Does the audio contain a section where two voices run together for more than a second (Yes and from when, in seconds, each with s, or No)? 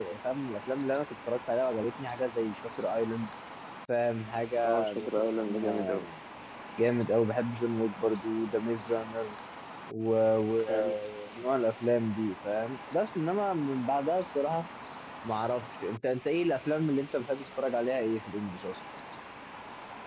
Yes, from 4.7 s